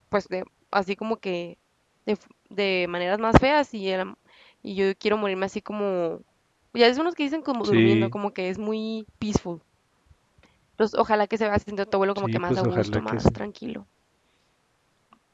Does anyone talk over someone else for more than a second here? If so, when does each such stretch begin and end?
12.2-13.4

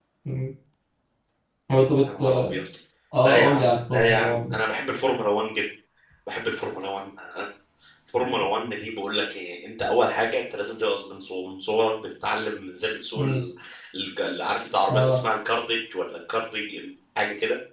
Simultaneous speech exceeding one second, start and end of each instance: 3.2-4.6

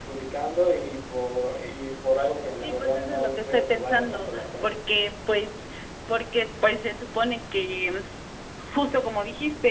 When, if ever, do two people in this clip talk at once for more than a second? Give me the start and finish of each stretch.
2.6-4.8

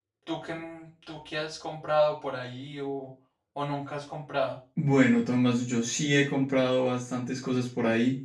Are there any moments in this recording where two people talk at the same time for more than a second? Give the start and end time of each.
none

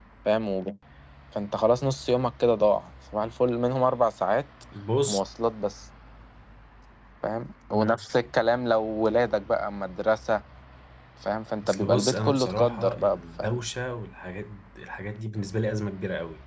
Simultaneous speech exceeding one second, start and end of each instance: 11.6-13.6

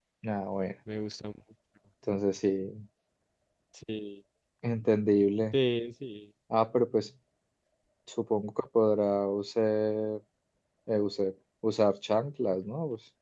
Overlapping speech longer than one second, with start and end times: none

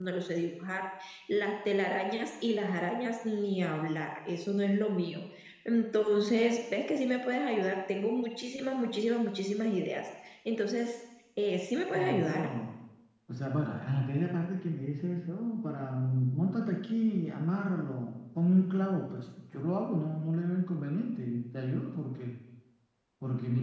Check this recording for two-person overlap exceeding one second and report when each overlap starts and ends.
none

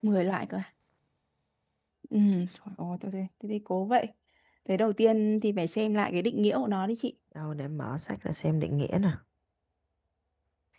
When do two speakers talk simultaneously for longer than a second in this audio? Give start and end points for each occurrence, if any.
none

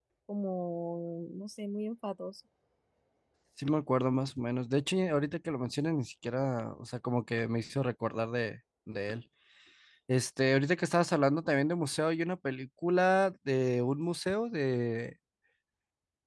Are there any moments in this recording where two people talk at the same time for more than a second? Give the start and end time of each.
none

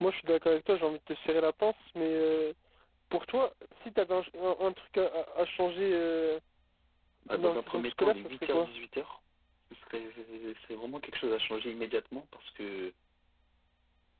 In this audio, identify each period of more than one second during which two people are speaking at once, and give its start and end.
7.3-8.7

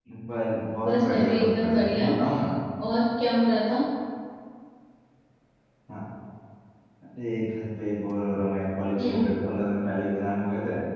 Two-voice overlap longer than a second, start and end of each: 0.8-2.1

